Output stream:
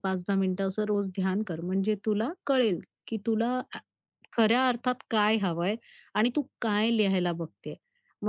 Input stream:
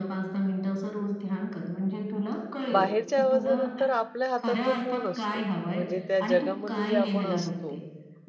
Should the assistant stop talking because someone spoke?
Yes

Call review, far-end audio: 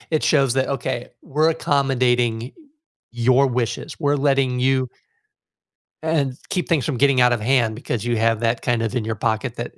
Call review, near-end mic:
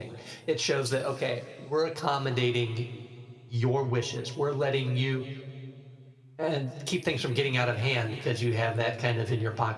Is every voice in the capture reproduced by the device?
Yes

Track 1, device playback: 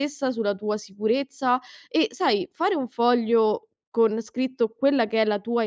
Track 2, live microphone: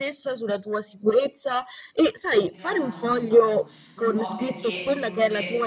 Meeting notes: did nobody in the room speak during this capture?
No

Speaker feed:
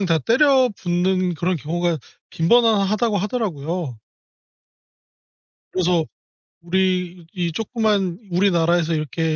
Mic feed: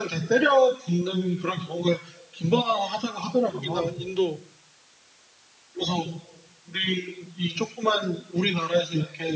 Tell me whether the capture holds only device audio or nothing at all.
No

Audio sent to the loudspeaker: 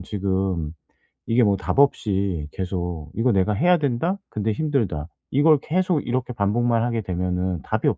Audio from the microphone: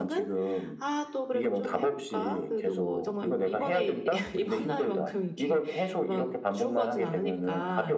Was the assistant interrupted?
Yes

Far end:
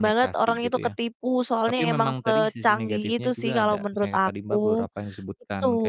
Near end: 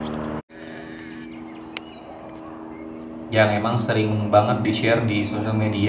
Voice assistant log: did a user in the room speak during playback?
Yes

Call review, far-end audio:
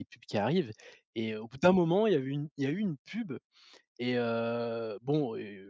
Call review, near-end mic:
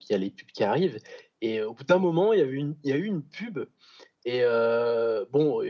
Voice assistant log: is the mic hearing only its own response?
Yes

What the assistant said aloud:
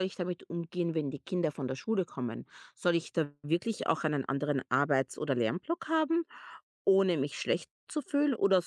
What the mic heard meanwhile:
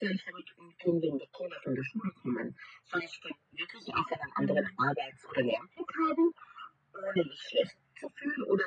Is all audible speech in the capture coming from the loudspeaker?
No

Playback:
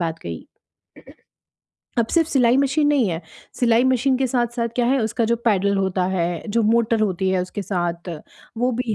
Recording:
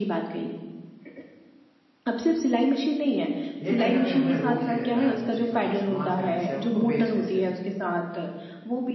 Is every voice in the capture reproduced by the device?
No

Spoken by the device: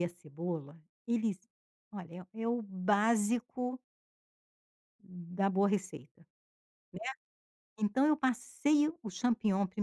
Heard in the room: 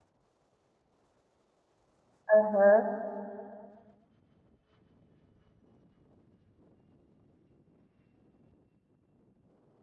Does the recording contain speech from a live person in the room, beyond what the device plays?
Yes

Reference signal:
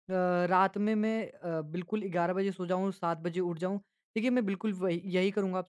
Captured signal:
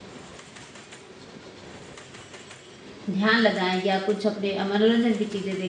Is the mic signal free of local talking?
No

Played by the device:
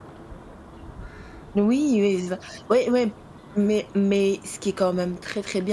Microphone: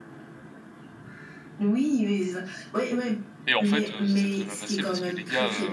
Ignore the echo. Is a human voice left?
Yes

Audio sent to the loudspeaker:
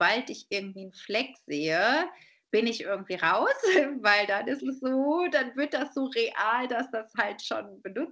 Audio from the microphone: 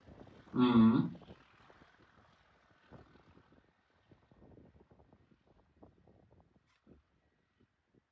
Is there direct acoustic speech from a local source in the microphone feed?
Yes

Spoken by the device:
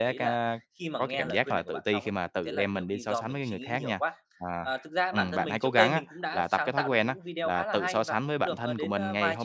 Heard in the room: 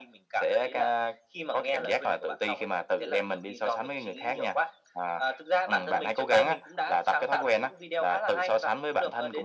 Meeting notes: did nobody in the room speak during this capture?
Yes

